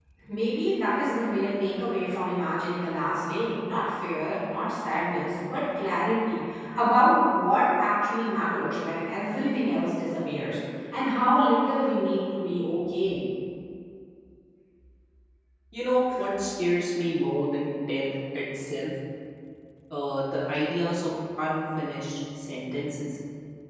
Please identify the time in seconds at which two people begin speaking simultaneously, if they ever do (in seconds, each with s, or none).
none